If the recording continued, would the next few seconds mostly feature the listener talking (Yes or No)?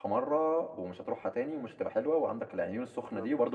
No